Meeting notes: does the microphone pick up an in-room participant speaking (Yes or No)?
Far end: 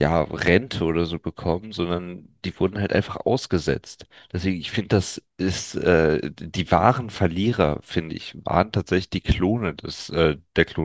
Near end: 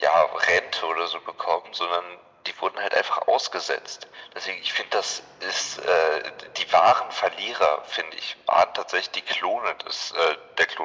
No